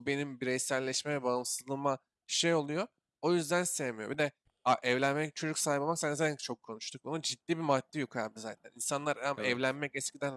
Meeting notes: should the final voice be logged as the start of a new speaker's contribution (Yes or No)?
No